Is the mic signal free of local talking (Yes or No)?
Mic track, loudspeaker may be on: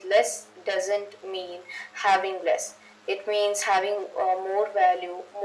Yes